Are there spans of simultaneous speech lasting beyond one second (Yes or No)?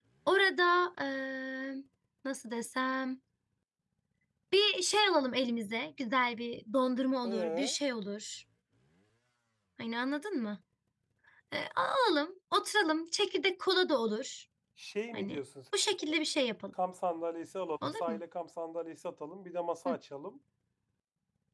No